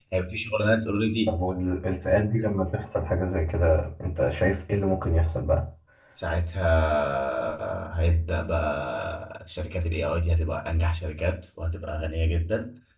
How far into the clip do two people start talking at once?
none

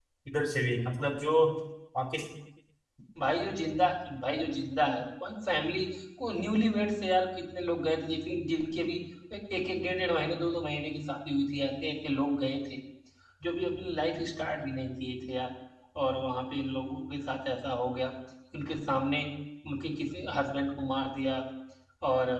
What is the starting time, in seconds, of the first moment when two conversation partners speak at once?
none

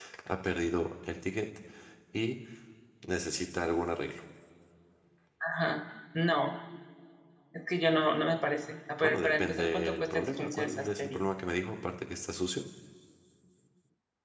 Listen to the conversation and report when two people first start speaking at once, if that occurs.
9.0 s

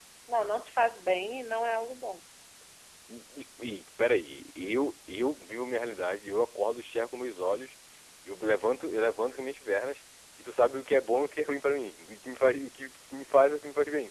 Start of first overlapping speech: none

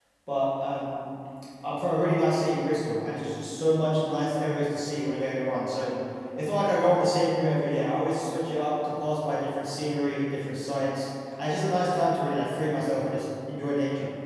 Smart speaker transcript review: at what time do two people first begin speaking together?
none

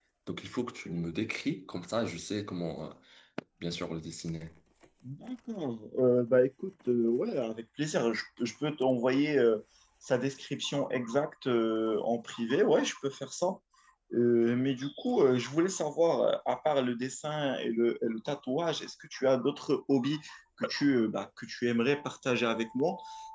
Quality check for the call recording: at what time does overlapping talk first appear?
none

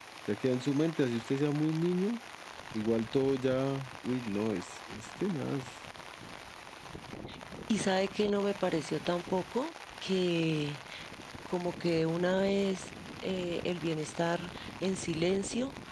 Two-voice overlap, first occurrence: none

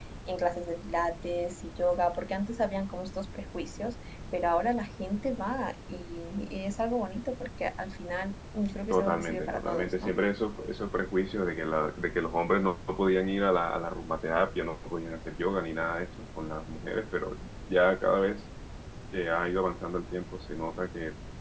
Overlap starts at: 8.9 s

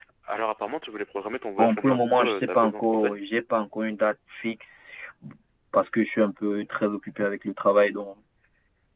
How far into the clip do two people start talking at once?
1.6 s

